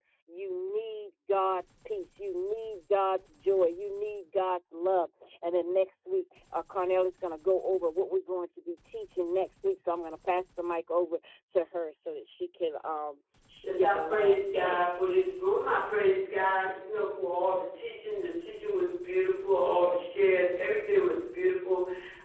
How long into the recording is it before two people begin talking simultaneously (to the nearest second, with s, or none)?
14 s